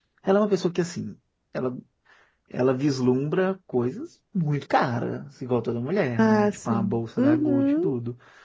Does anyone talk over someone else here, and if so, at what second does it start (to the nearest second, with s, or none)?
6 s